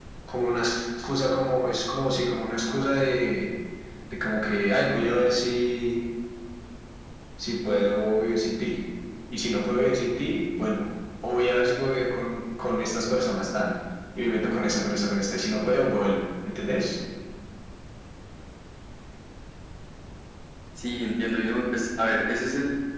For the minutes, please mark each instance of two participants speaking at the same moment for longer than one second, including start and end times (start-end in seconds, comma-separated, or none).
none